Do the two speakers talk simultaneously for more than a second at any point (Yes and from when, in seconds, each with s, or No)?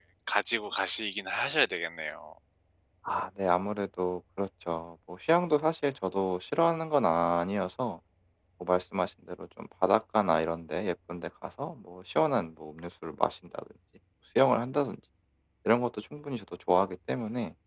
No